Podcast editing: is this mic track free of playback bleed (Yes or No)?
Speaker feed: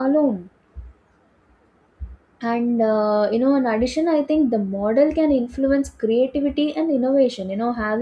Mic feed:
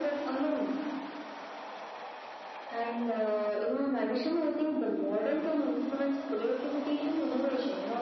No